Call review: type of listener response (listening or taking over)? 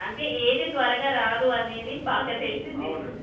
taking over